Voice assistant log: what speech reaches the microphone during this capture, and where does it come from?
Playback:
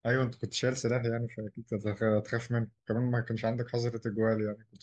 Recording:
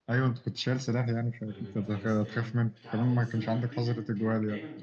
both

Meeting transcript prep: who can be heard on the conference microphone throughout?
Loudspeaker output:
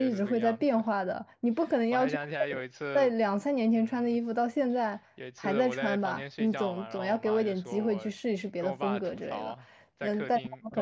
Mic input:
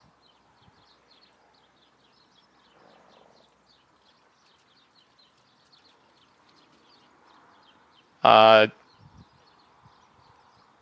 user only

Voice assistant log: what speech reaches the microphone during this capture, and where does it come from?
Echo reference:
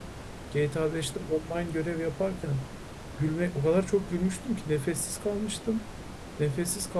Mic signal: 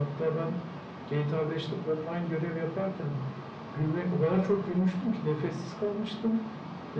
echo only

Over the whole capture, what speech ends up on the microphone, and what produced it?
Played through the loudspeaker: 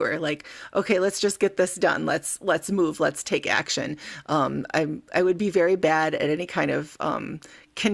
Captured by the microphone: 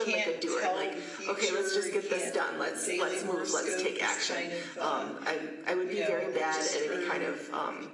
both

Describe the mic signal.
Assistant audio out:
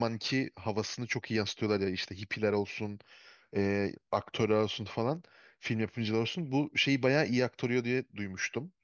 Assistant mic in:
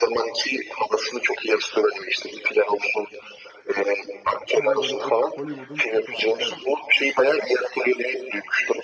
both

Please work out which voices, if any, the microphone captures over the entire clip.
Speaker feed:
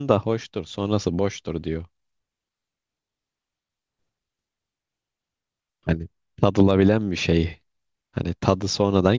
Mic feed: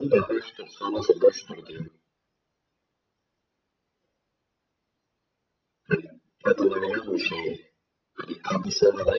echo only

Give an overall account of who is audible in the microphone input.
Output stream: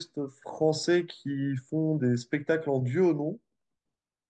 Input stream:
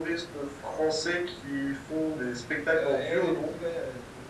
both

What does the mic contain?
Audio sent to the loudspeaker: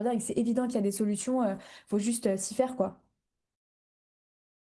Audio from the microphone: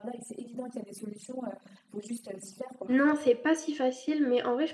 both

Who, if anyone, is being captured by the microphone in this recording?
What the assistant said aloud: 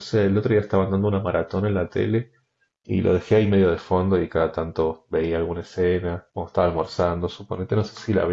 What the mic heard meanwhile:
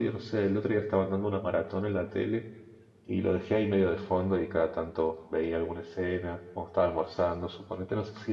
echo only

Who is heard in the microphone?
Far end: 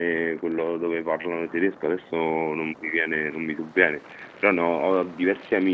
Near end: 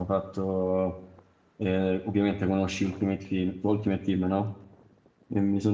user only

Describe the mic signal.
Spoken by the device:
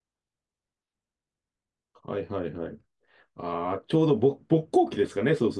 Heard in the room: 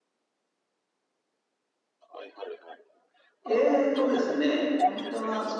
both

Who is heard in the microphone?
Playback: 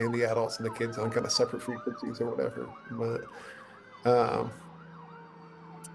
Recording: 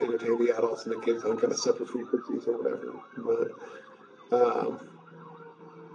echo only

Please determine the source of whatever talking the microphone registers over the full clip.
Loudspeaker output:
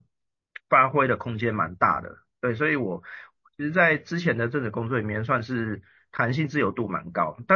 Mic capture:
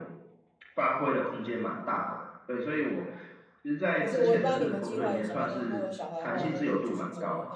both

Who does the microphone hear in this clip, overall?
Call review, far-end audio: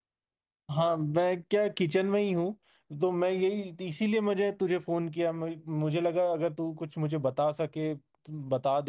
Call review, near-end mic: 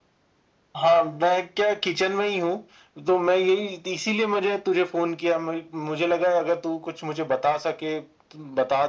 echo only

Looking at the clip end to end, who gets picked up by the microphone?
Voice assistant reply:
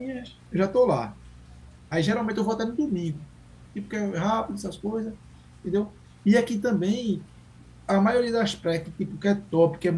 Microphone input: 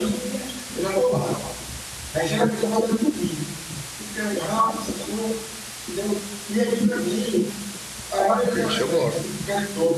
both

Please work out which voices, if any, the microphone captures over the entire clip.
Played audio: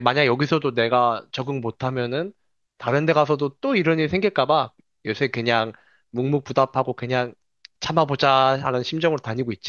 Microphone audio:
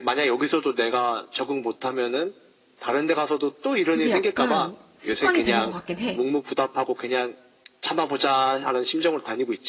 both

